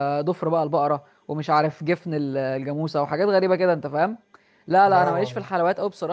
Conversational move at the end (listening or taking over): listening